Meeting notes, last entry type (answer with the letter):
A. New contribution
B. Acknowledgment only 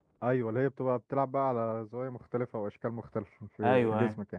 A